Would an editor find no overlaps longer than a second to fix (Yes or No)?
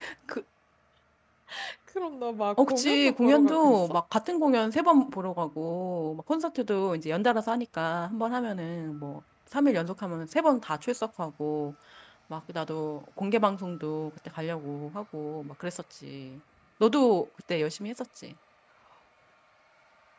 No